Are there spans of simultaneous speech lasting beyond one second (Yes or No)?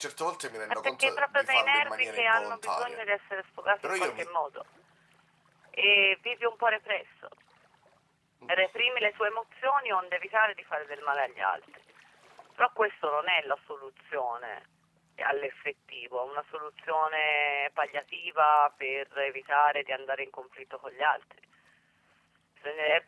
Yes